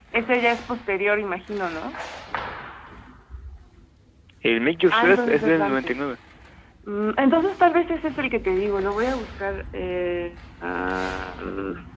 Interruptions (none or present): present